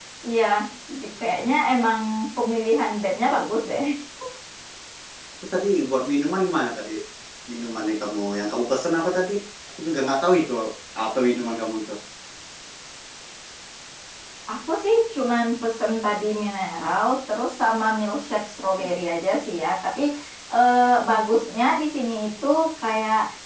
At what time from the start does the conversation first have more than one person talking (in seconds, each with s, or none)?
none